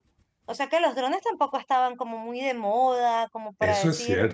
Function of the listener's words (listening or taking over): taking over